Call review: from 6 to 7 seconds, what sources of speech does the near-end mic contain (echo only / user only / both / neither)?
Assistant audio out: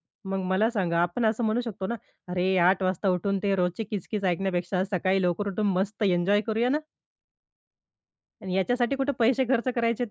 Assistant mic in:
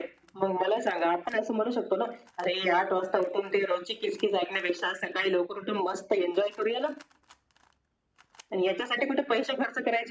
echo only